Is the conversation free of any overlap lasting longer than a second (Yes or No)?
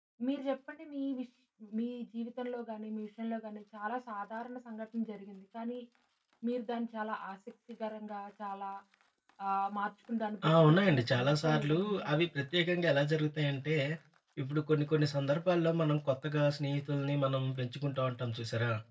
No